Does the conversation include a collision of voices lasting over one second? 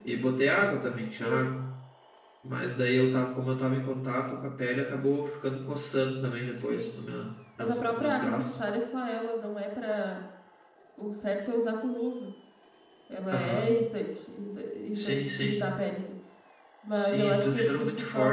Yes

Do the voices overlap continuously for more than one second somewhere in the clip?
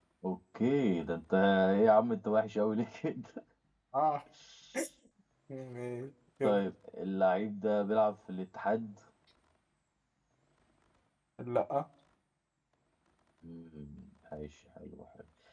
No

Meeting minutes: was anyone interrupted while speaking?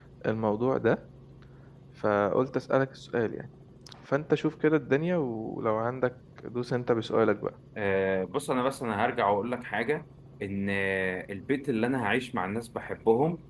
No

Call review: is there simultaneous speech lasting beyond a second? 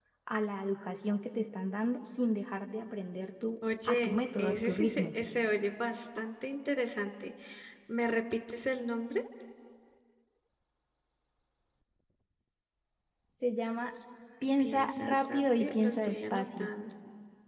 Yes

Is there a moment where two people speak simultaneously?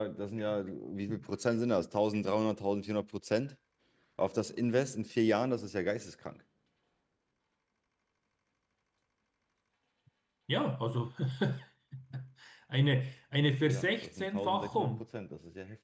Yes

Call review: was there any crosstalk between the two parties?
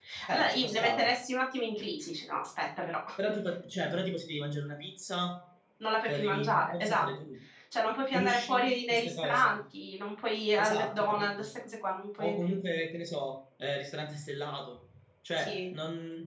Yes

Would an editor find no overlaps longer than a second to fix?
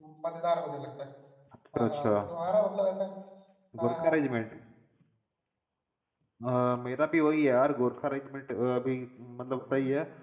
Yes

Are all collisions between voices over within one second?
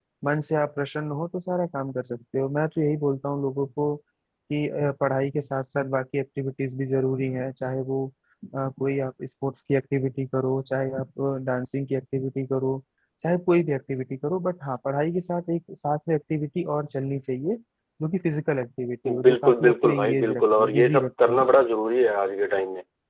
No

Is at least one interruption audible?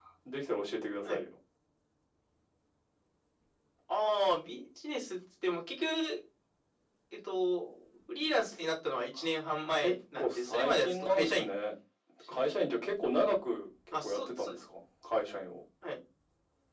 Yes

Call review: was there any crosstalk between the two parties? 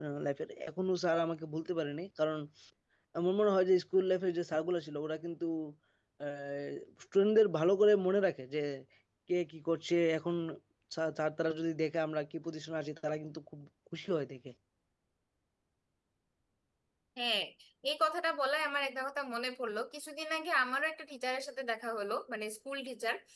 No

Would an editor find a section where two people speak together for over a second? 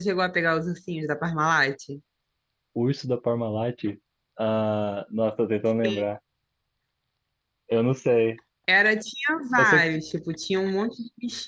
No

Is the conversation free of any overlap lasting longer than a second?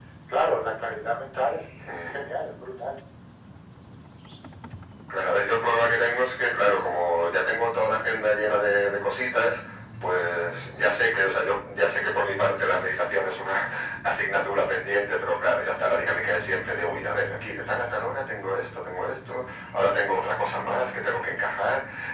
Yes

